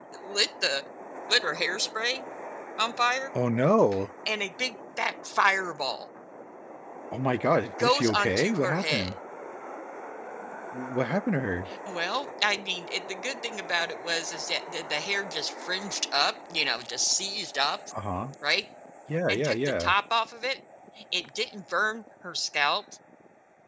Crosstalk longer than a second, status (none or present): present